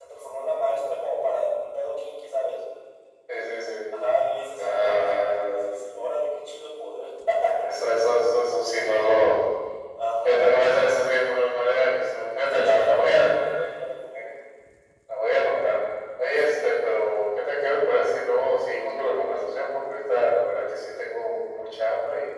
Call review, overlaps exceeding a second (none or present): present